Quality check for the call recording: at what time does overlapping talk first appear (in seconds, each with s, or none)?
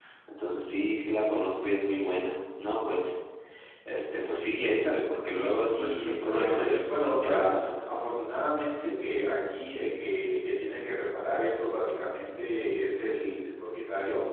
5.5 s